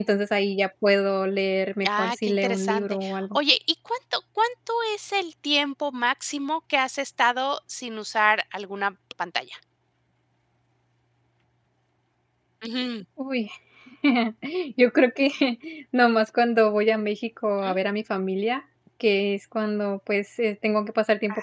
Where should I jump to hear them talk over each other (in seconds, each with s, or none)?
1.8 s